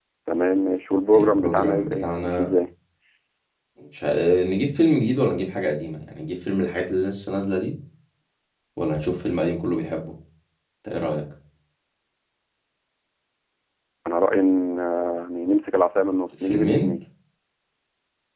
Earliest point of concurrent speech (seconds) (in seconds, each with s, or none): 1.1 s